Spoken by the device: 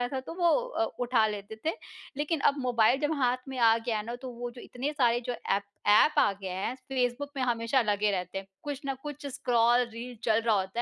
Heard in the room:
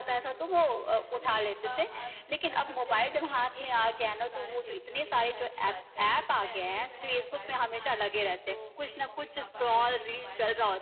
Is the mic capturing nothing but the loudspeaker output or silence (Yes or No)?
No